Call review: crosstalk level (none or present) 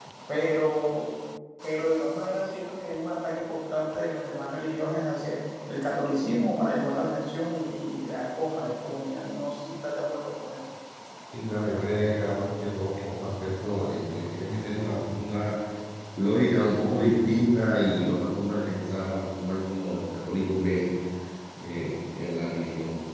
none